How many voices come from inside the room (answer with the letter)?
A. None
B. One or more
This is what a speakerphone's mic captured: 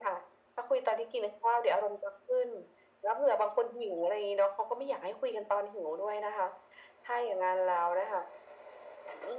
A